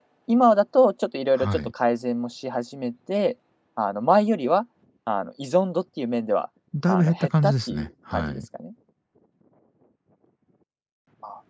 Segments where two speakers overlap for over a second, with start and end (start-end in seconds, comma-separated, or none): 6.9-8.4